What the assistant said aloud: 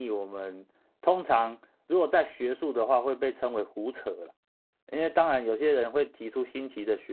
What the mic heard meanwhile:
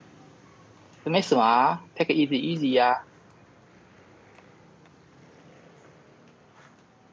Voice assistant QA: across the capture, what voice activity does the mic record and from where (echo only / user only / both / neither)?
user only